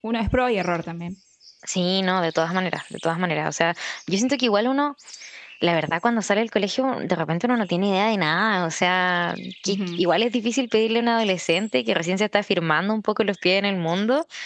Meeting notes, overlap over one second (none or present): none